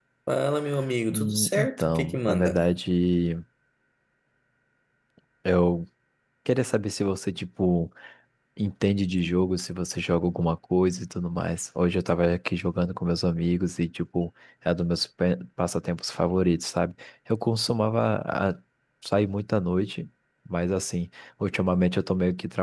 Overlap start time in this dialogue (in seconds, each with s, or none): 1.1 s